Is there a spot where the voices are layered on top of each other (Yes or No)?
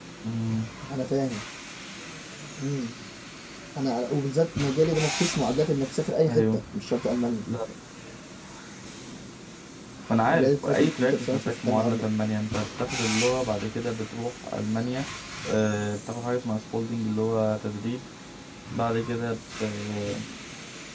Yes